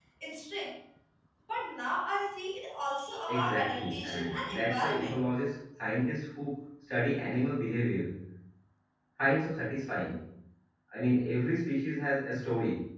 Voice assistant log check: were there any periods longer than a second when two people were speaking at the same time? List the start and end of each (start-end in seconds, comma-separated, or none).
3.3-5.2